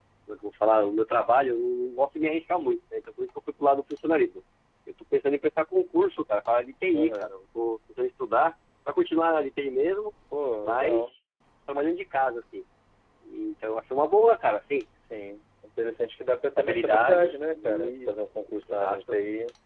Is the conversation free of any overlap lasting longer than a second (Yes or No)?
No